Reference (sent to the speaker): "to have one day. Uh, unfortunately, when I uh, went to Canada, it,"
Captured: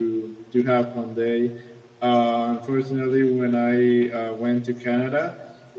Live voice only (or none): none